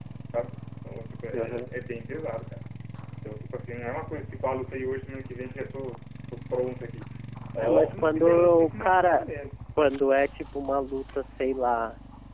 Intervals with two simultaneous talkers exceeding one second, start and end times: 7.6-9.3

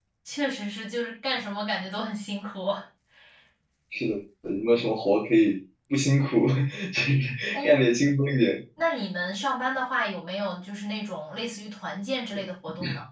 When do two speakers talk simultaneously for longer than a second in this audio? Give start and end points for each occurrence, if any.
none

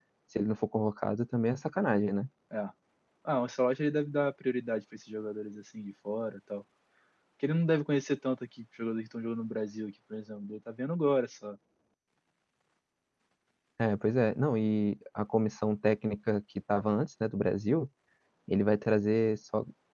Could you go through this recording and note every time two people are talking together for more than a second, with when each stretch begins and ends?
none

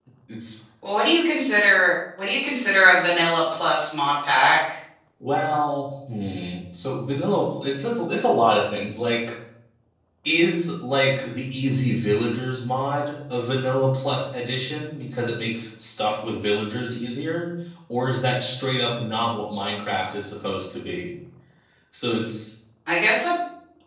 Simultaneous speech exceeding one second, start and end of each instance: none

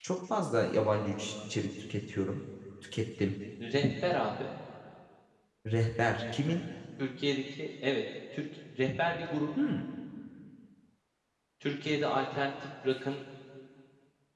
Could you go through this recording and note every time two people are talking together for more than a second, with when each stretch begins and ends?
none

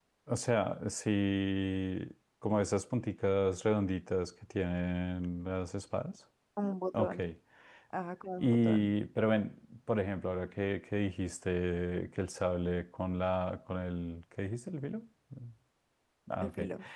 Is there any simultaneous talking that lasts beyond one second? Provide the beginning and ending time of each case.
none

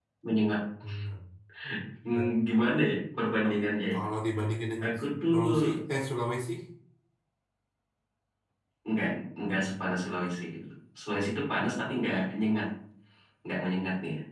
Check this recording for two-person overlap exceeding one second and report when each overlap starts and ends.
none

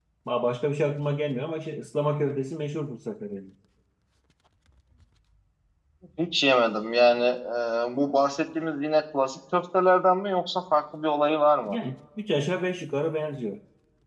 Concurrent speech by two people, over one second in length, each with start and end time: none

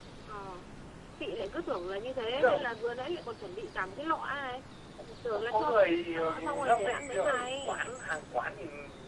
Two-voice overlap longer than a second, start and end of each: 5.3-7.8

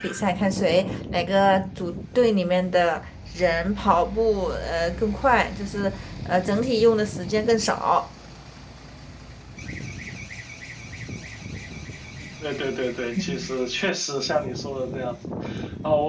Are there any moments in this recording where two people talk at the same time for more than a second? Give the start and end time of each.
none

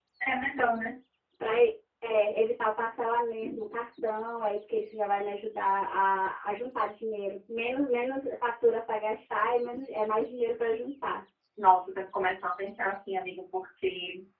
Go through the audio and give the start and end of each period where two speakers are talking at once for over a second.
none

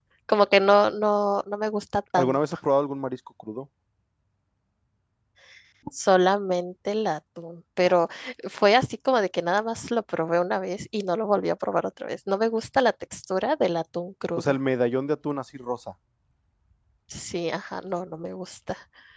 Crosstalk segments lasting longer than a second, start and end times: none

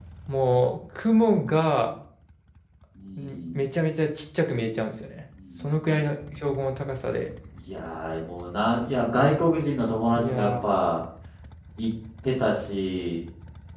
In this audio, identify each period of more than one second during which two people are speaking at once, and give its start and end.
none

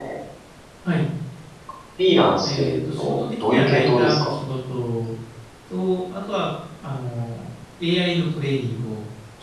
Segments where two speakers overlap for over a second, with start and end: 2.4-4.4

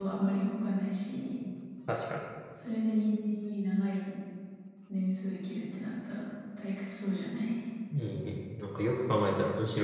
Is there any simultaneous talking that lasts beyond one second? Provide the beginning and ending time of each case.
none

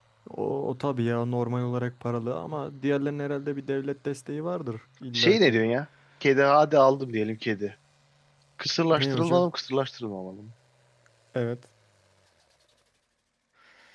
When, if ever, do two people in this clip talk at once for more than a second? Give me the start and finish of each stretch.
none

